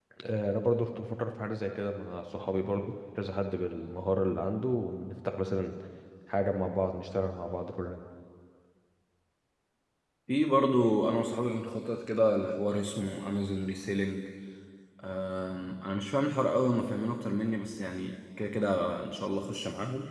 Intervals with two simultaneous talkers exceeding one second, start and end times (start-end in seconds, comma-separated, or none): none